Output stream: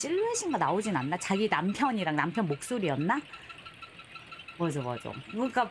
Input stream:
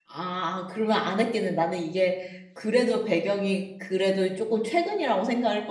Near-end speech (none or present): present